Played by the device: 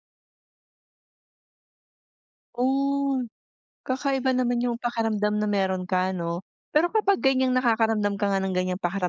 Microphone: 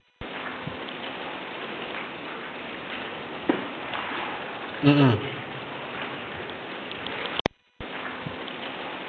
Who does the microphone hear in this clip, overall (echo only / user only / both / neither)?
user only